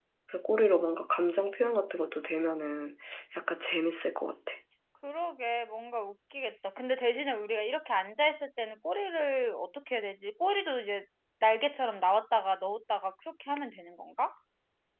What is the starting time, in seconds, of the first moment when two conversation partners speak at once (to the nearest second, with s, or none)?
none